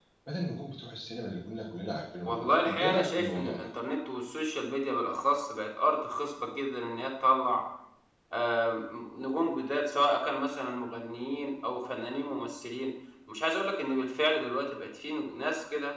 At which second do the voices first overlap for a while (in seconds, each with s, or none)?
2.3 s